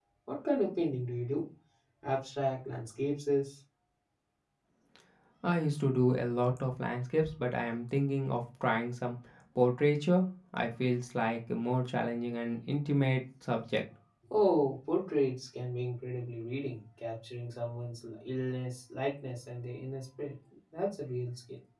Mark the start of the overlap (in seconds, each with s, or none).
none